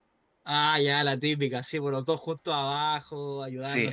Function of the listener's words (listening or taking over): taking over